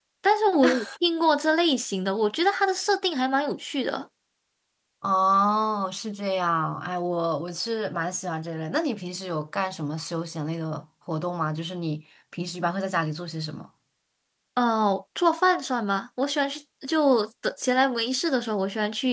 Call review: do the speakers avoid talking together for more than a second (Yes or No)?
Yes